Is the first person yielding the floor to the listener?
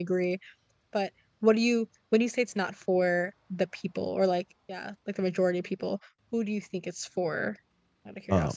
Yes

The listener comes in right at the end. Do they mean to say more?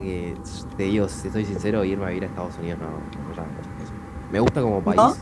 No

